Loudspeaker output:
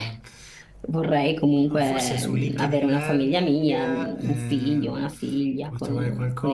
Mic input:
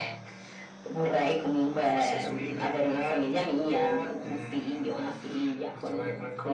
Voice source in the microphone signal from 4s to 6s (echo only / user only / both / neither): echo only